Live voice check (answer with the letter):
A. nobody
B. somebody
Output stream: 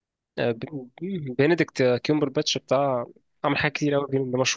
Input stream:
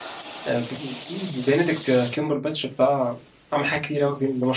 A